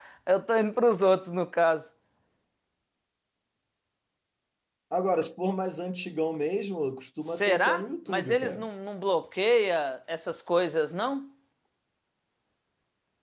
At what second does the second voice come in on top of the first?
7.2 s

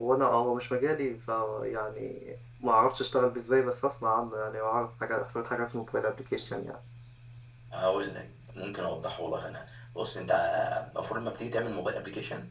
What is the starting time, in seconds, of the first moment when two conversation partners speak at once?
none

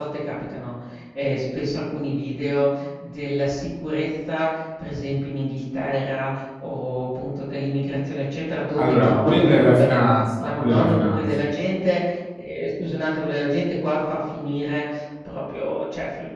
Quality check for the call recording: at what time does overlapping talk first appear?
8.8 s

